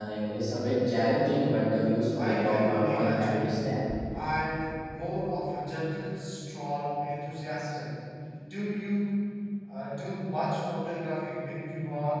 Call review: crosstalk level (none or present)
present